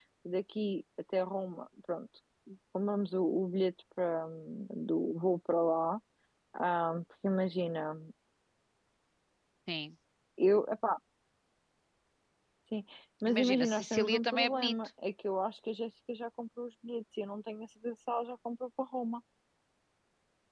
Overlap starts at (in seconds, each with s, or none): 13.3 s